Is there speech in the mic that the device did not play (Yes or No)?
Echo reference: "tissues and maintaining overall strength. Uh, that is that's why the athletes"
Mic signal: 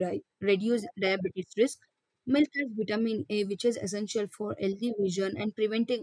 Yes